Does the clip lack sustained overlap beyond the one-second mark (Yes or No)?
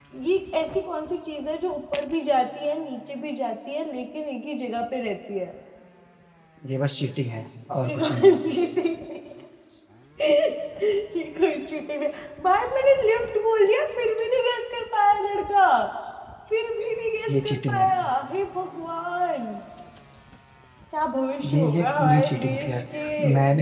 No